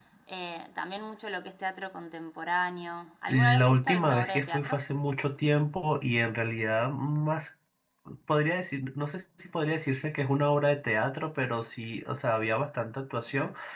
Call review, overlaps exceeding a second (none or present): present